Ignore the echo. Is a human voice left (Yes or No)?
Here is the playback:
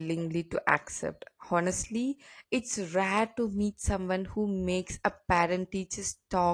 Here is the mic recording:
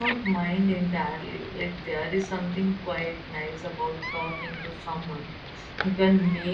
Yes